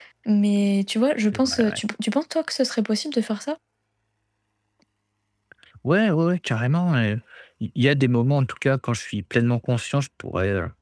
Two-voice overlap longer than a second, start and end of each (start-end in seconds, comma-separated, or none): none